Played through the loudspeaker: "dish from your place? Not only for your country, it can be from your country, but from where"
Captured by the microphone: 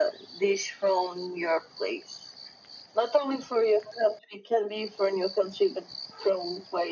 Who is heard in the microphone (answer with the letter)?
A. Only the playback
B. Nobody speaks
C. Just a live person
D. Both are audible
A